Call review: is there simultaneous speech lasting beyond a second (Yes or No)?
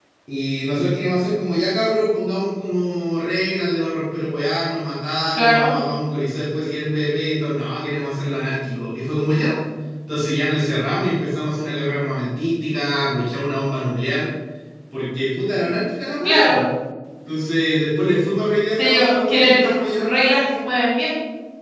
Yes